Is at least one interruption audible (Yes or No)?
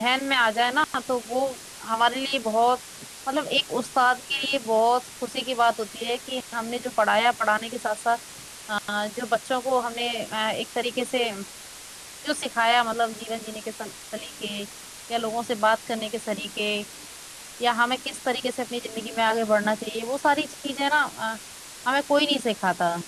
No